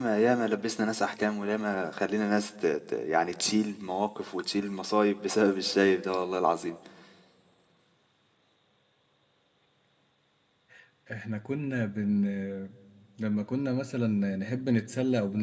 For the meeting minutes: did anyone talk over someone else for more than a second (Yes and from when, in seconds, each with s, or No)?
No